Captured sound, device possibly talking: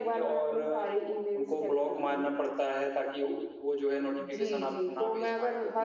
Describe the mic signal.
echo only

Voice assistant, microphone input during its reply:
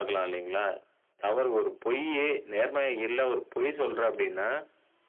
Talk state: echo only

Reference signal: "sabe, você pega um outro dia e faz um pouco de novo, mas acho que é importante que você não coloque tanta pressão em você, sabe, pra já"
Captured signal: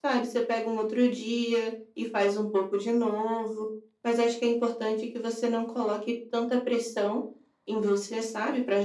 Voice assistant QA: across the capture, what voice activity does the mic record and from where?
echo only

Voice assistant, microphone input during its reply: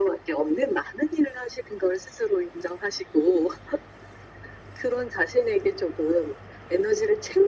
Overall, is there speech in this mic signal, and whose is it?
echo only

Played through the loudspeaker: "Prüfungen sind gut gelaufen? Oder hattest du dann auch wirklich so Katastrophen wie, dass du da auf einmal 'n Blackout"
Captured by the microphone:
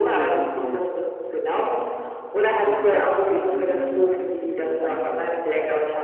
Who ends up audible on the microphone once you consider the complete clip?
both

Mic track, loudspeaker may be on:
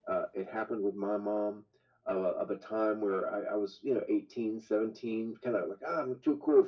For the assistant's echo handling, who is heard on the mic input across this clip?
echo only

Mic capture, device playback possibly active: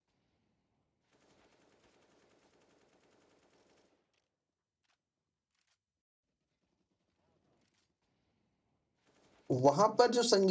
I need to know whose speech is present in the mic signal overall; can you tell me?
user only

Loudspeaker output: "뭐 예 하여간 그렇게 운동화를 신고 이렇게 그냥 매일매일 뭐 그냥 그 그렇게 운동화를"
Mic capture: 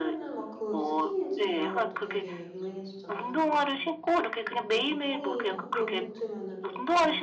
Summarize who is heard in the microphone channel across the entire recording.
both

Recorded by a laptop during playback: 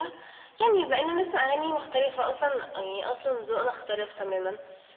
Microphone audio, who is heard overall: echo only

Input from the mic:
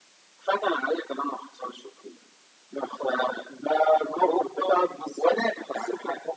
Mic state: echo only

